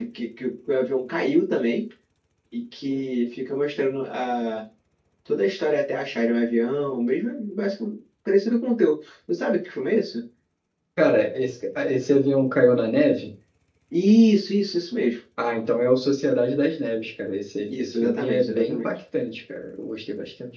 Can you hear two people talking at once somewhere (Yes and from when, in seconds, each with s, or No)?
Yes, from 17.7 s